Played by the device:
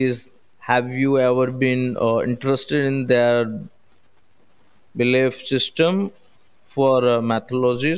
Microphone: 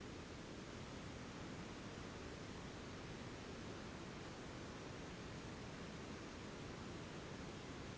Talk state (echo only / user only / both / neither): neither